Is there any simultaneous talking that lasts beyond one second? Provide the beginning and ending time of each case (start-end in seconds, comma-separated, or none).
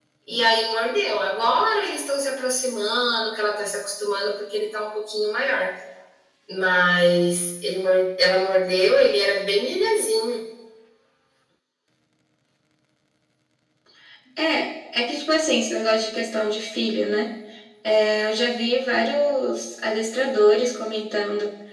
none